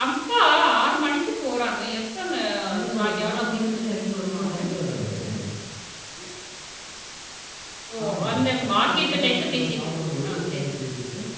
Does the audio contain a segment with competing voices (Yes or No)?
Yes